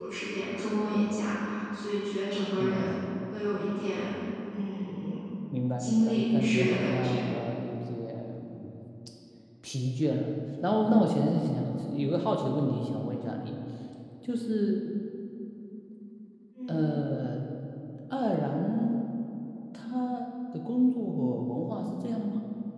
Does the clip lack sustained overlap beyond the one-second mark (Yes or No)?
No